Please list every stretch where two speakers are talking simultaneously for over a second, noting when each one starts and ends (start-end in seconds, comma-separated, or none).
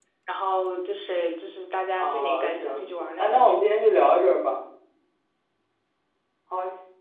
2.0-3.8